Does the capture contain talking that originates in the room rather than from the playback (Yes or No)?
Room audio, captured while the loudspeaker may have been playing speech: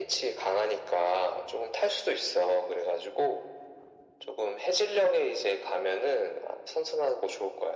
No